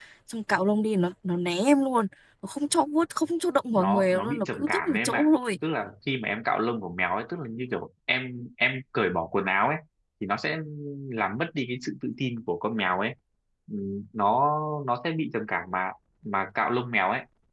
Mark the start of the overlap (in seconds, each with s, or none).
3.8 s